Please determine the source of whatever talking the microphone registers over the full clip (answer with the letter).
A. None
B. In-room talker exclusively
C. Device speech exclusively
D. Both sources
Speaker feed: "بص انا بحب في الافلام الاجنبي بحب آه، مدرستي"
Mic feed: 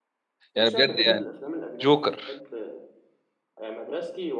D